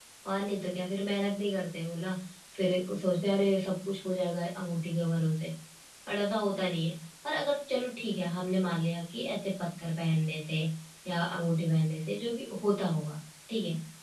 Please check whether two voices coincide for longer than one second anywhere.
No

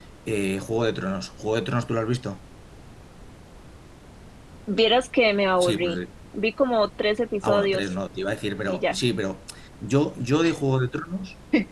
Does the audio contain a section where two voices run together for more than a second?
No

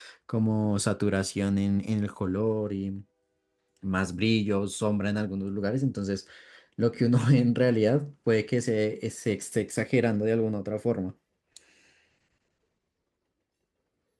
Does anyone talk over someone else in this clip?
No

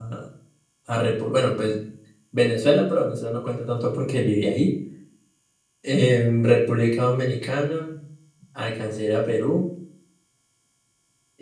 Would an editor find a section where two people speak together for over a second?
No

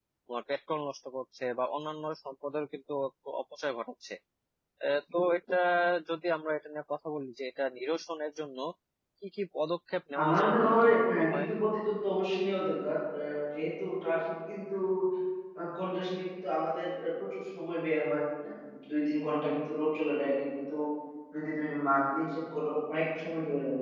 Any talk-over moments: Yes, from 10.2 s

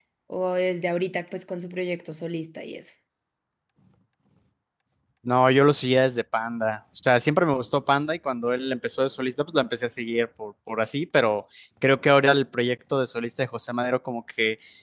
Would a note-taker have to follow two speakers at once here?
No

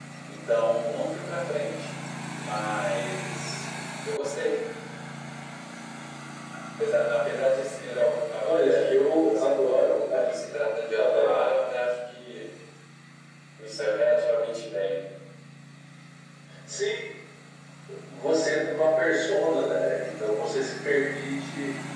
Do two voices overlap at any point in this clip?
Yes, from 8.4 s

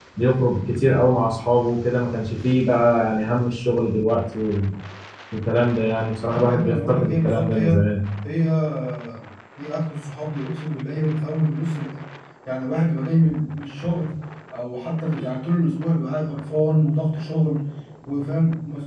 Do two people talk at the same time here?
Yes, from 6.3 s

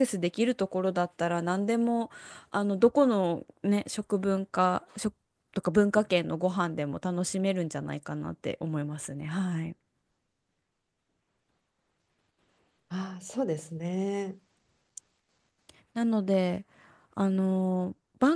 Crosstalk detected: No

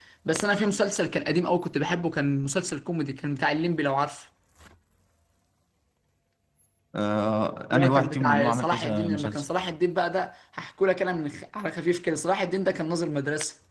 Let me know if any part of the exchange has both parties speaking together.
Yes, from 7.7 s

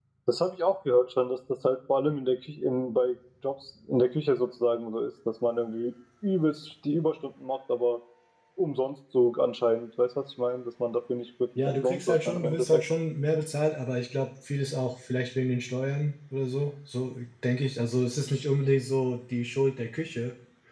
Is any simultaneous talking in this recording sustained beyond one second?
Yes, from 11.6 s

